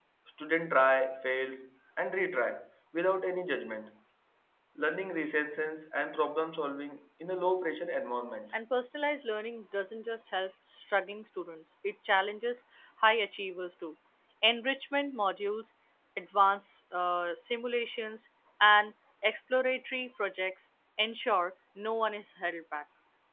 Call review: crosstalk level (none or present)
none